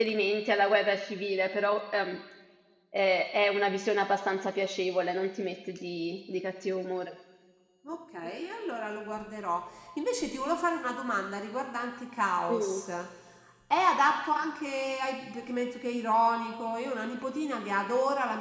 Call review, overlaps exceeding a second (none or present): none